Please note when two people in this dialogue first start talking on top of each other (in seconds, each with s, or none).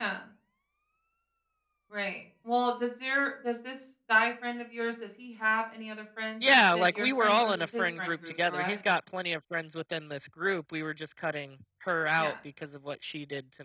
6.4 s